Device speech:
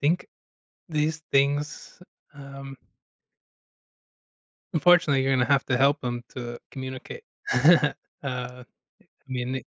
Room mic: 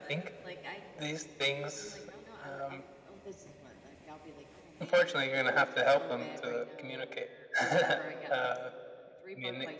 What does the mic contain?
both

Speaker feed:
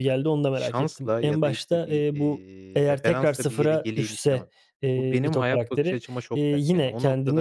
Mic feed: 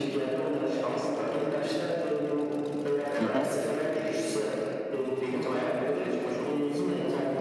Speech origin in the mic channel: both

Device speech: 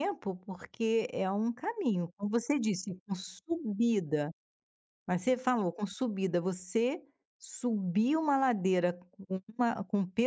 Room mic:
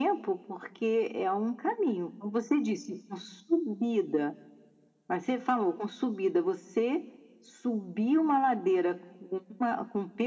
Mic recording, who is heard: echo only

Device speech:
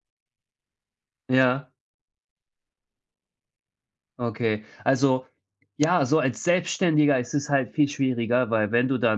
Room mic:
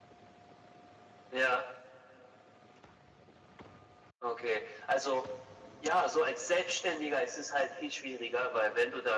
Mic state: echo only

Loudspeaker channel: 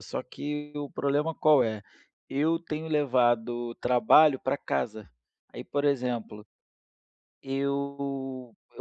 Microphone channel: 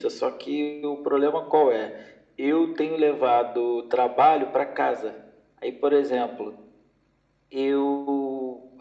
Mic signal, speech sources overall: echo only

